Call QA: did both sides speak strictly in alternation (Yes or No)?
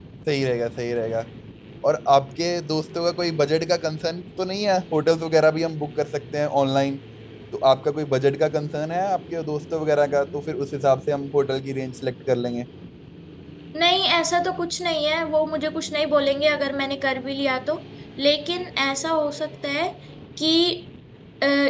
Yes